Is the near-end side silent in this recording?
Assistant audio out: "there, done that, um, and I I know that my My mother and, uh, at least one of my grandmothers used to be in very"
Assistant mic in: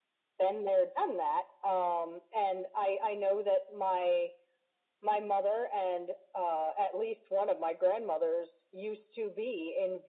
Yes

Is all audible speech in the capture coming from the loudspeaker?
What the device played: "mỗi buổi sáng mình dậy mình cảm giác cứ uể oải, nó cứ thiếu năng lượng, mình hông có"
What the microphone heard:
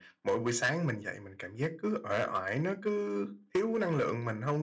Yes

